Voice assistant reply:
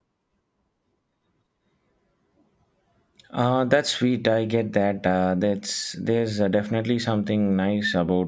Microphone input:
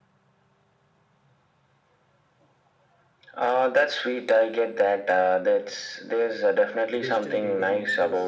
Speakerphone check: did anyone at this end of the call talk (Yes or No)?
Yes